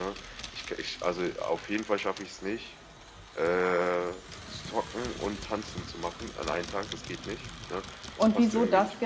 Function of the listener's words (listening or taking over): taking over